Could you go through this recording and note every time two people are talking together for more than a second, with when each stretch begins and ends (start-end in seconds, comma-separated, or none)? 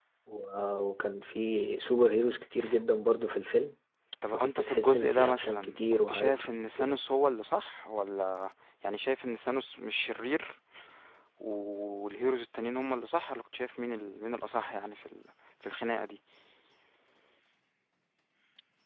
4.3-7.0